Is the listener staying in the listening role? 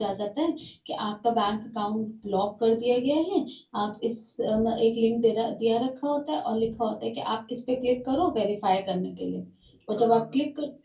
Yes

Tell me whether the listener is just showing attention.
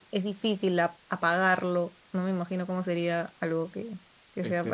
No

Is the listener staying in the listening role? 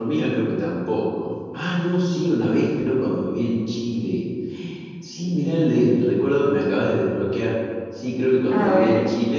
Yes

